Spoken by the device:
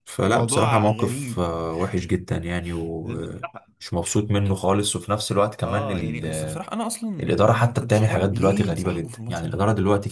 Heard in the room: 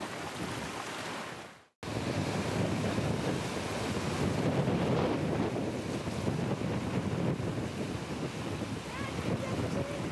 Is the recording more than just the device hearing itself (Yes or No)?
No